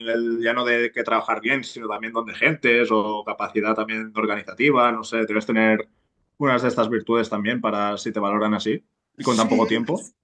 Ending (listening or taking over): taking over